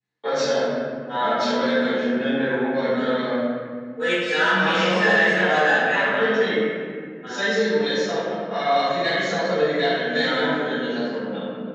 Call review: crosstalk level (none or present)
present